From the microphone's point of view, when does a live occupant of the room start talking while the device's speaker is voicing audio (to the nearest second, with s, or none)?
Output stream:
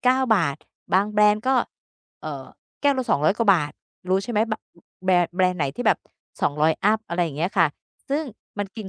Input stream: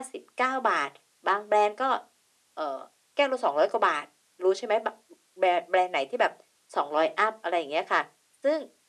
none